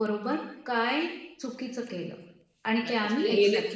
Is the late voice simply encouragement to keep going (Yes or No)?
No